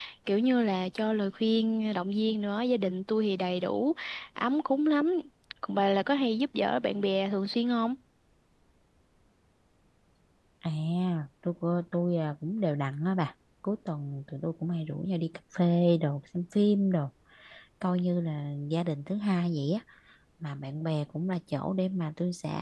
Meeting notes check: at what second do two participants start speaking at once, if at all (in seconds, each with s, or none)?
none